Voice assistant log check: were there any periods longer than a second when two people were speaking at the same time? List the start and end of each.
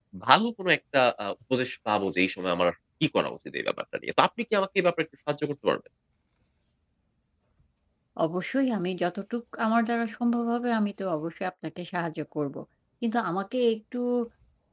none

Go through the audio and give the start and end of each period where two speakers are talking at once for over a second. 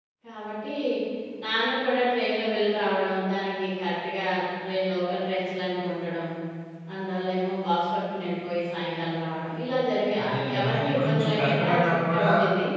10.2-12.3

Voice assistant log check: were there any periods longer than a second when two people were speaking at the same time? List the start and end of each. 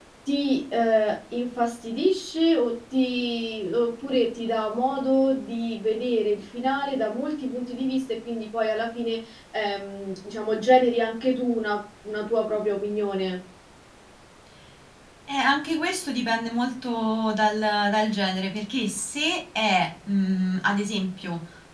none

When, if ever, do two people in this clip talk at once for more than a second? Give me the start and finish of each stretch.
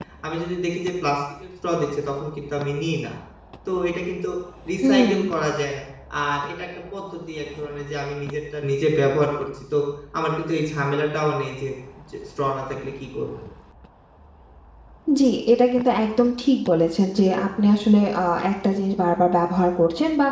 none

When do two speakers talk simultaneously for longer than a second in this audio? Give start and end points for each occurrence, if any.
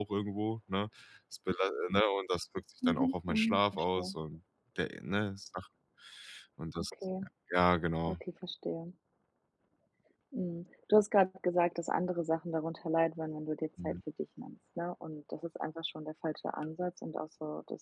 2.9-4.2

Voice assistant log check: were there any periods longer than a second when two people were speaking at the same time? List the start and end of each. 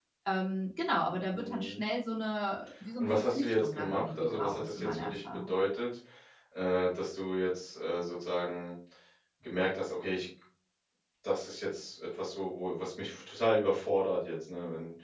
3.0-5.5

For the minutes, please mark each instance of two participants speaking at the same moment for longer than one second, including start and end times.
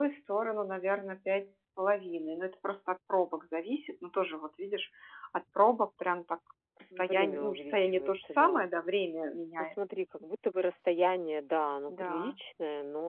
7.0-8.7

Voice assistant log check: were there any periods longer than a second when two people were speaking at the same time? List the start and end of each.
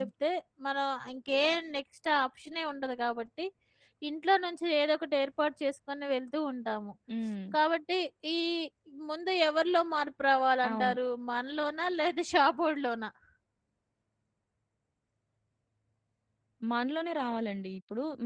none

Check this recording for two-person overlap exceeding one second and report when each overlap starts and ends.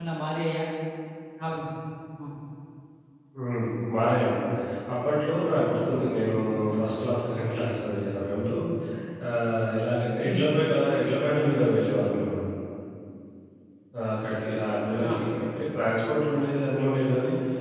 none

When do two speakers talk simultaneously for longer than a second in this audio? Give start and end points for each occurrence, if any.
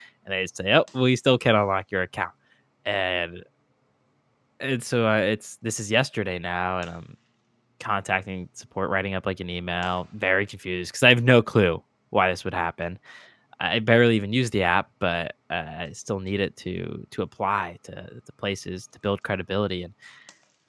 none

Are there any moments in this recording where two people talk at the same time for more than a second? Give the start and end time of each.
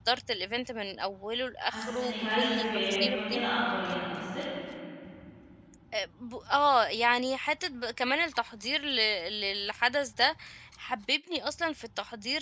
1.6-3.4

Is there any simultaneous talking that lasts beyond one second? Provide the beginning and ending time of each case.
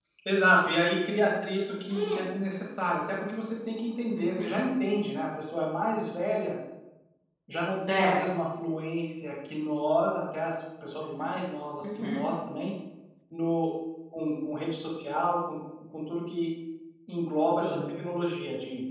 none

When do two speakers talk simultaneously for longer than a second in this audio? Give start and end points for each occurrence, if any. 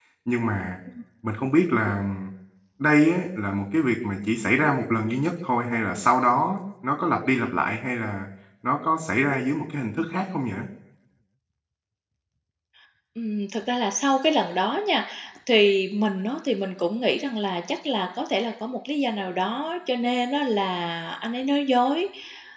none

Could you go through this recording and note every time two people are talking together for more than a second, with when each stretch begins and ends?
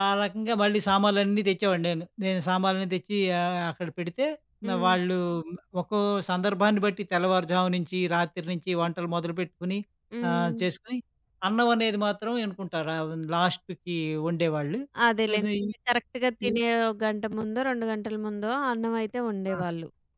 none

